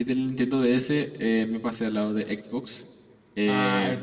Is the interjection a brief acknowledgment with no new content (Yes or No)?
Yes